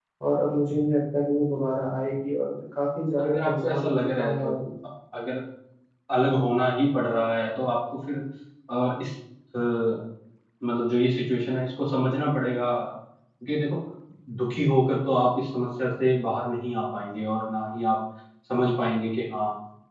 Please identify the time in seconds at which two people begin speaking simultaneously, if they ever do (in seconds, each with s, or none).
3.2 s